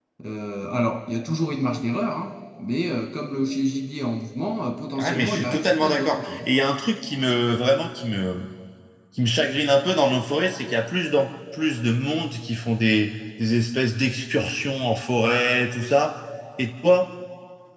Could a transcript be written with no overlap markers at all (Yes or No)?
No